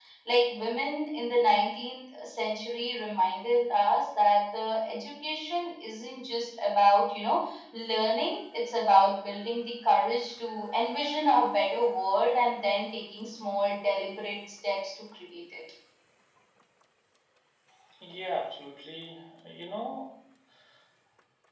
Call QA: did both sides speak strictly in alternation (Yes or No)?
Yes